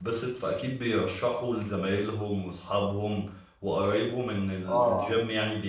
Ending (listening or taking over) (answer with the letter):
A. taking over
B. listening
B